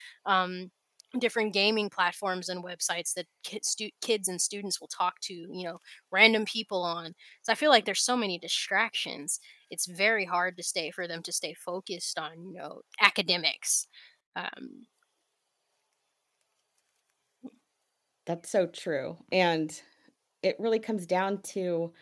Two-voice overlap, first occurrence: none

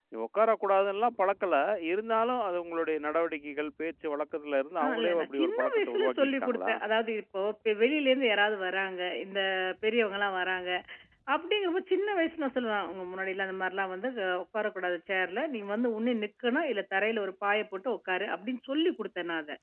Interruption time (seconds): 4.8 s

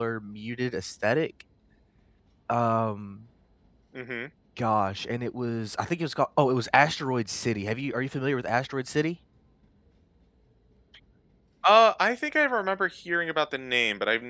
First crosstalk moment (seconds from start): none

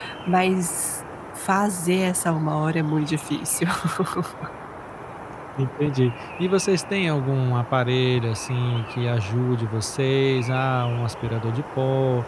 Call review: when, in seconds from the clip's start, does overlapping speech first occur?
none

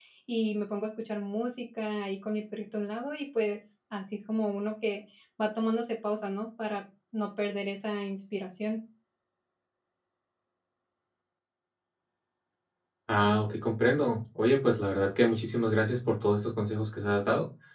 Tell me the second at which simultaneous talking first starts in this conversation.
none

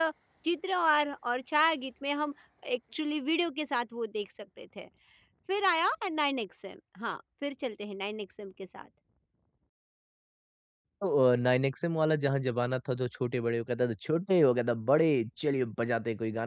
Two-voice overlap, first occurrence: none

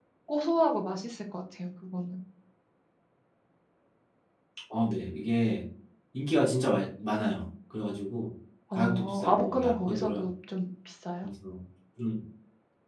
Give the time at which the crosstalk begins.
8.7 s

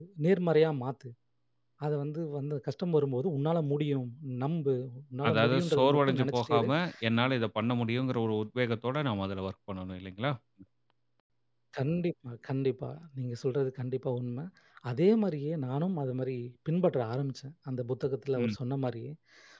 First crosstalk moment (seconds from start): 5.3 s

